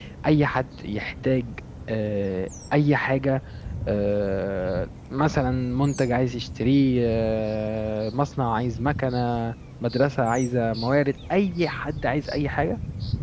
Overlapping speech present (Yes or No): No